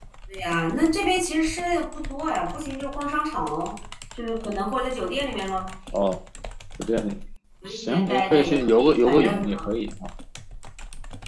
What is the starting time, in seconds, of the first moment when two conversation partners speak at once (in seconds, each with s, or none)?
7.7 s